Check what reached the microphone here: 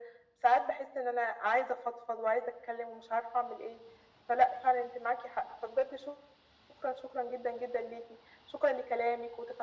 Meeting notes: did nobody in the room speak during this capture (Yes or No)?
Yes